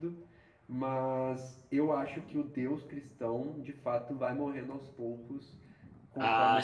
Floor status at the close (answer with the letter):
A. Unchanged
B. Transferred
B